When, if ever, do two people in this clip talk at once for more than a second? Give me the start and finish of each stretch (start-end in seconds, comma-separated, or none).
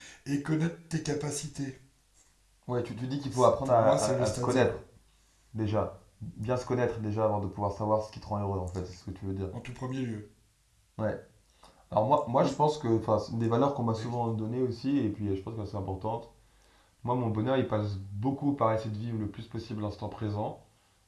3.3-4.8